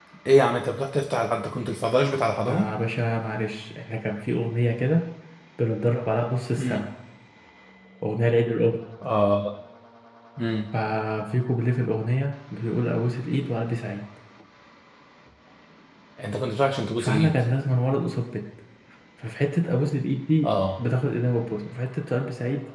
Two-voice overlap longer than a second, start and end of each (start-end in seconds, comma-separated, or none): none